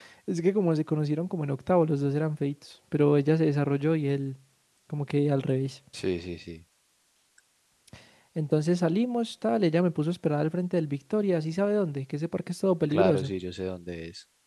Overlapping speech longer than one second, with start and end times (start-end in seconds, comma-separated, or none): none